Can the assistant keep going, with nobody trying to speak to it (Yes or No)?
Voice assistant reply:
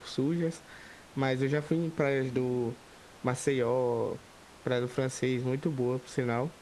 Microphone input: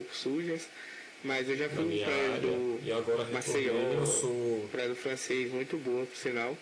No